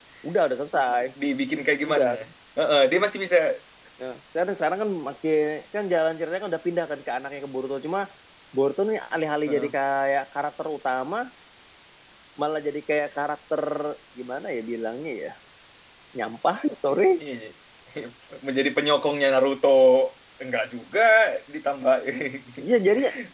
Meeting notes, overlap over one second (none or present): none